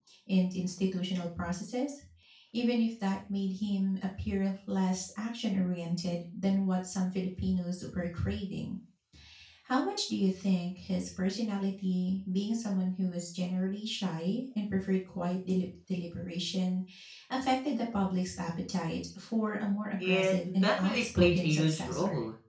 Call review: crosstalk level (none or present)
present